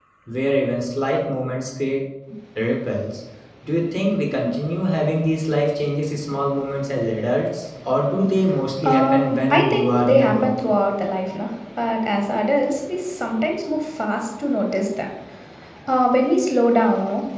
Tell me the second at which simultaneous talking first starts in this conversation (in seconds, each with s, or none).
8.8 s